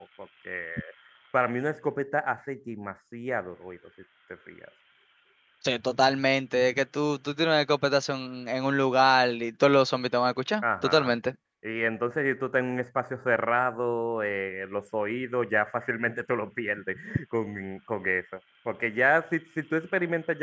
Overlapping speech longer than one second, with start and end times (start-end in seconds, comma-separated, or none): none